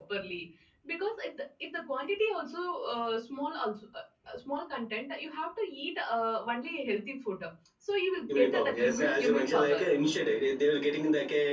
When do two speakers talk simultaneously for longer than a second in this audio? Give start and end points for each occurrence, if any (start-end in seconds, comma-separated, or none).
8.4-9.8